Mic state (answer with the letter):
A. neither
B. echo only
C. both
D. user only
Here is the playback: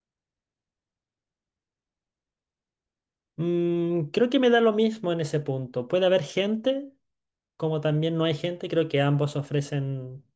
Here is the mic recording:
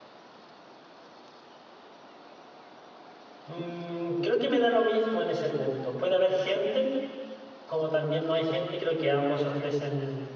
B